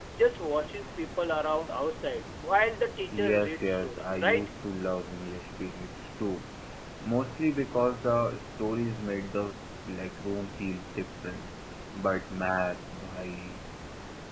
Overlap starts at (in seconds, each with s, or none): 3.1 s